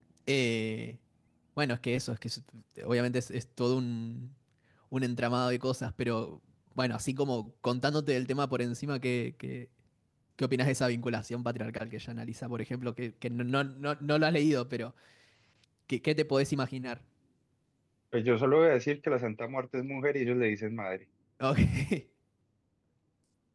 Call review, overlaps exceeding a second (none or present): none